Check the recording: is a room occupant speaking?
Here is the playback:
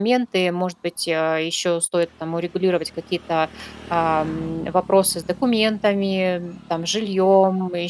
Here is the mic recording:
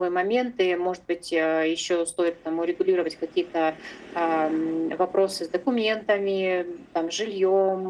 No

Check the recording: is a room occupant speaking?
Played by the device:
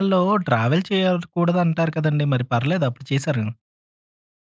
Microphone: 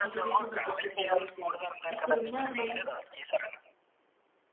Yes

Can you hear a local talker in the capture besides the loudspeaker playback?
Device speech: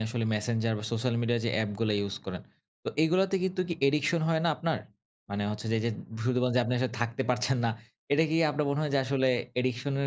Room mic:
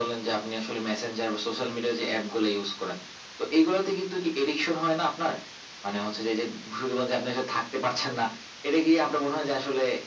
No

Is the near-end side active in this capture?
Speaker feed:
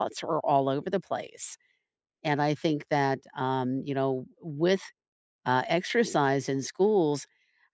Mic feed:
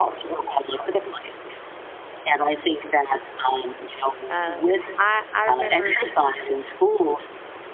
Yes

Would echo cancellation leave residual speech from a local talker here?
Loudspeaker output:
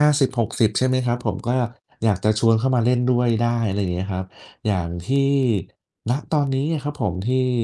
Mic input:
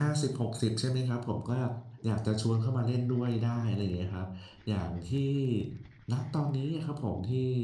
No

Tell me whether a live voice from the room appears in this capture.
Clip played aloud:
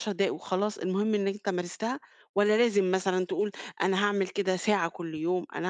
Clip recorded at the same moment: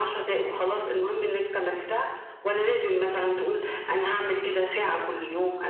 No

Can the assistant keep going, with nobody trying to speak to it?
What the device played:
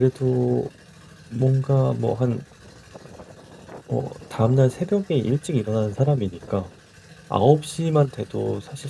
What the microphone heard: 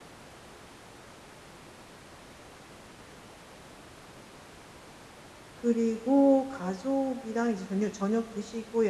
No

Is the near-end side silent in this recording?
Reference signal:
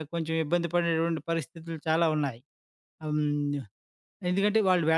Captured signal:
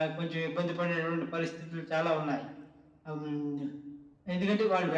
Yes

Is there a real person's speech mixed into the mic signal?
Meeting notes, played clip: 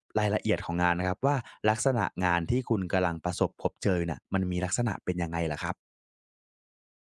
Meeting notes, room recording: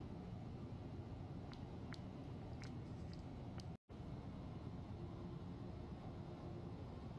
No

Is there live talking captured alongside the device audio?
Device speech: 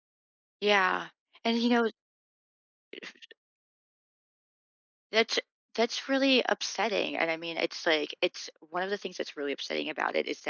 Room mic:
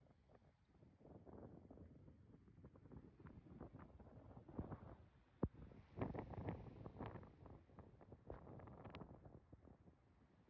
No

